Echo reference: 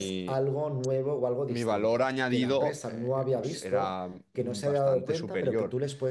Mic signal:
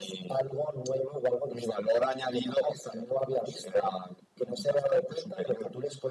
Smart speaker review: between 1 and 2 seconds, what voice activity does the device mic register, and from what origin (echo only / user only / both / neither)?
echo only